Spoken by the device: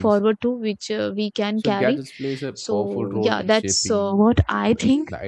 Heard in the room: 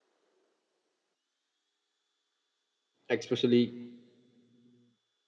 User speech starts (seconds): 3.1 s

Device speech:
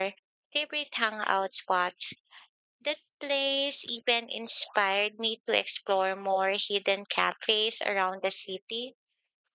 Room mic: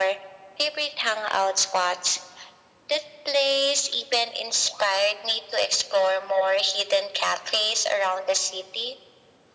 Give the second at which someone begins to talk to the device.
none

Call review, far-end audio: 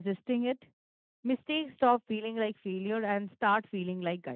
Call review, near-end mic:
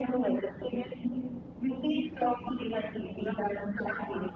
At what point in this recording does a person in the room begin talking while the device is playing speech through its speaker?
none

